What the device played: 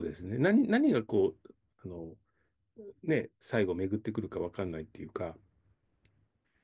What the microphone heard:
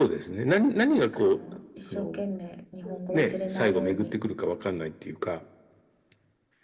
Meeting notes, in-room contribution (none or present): present